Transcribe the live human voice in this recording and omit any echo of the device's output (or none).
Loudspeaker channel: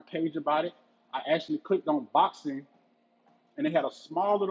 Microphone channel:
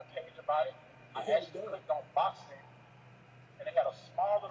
held up,